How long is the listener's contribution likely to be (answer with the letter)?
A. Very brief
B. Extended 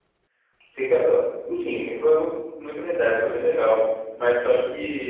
A